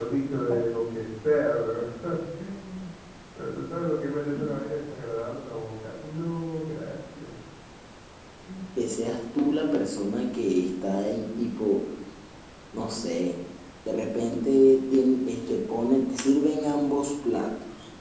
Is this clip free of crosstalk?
Yes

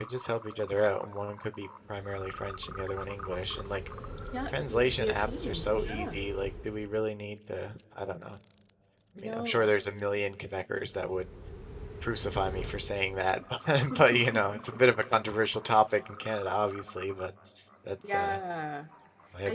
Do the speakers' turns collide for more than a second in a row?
Yes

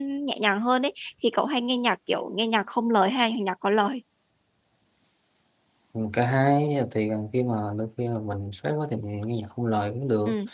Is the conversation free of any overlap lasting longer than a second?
Yes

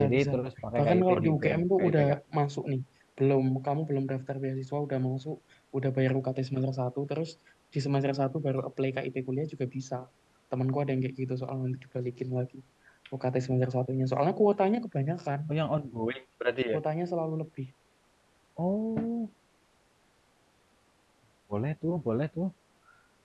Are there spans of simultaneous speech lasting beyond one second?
Yes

